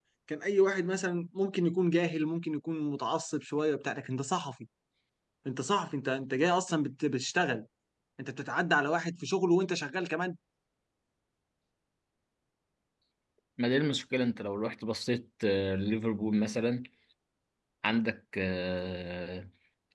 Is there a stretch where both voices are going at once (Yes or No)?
No